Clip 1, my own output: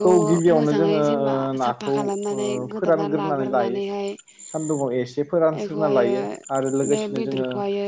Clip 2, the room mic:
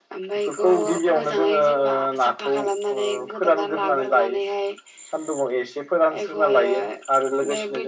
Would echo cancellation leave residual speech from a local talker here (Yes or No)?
No